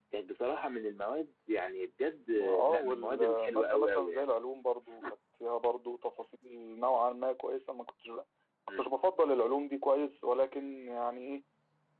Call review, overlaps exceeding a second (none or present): present